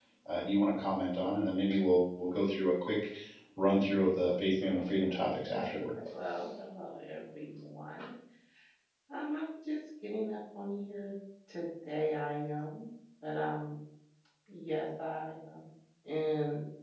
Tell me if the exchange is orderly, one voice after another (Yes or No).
No